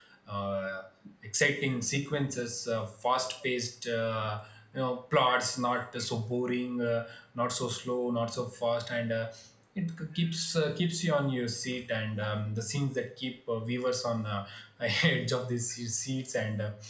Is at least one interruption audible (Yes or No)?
No